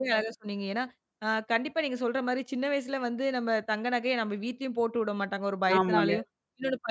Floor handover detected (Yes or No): No